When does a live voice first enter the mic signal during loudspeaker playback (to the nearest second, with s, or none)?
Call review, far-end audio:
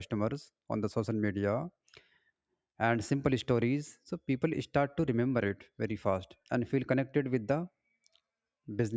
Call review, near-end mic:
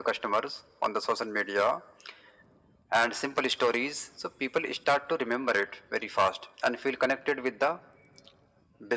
none